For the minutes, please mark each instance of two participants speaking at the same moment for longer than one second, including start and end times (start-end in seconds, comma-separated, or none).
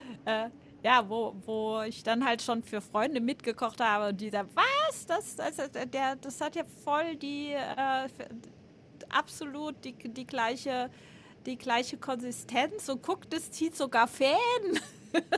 none